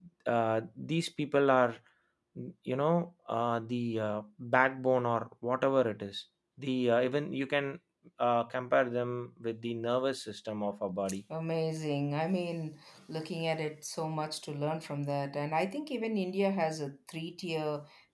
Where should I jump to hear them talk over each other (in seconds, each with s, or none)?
none